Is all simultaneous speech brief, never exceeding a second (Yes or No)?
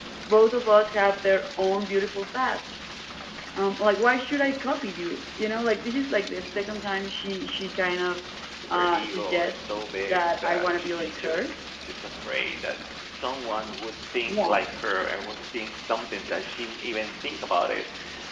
No